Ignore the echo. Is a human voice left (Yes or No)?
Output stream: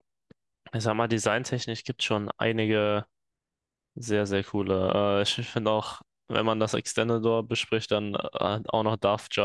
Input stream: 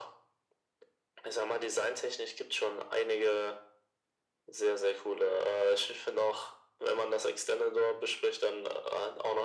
No